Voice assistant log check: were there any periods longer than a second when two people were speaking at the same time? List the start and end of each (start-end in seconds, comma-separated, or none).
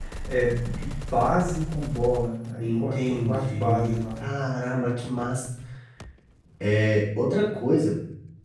2.6-4.0